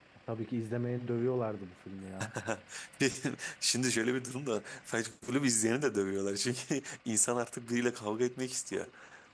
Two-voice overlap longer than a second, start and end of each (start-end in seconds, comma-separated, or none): none